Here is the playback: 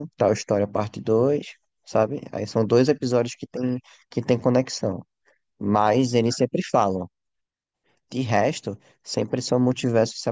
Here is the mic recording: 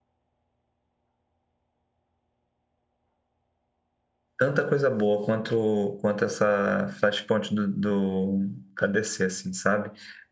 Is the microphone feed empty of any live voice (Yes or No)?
No